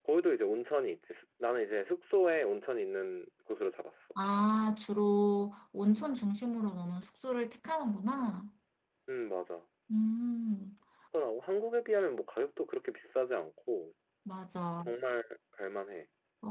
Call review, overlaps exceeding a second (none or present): none